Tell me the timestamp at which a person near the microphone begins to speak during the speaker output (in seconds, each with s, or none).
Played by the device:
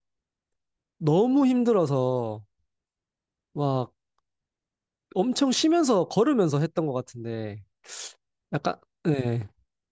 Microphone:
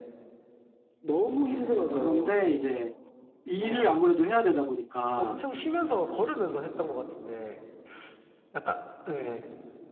1.5 s